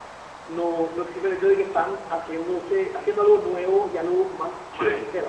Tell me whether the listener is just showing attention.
Yes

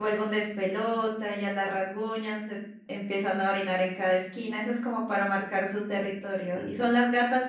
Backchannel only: Yes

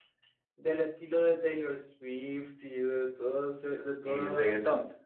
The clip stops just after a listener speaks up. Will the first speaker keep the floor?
No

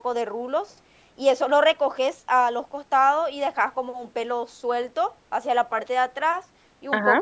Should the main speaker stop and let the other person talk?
No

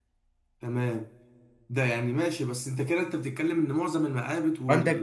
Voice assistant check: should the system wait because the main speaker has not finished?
No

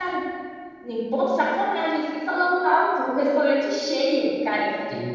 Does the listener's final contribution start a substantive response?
No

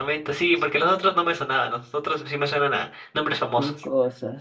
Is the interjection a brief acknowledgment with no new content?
No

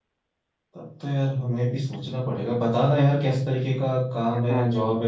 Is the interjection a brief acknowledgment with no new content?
Yes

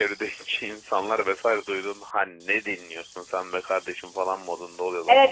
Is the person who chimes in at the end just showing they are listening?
No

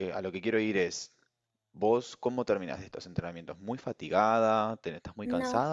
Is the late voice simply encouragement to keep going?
Yes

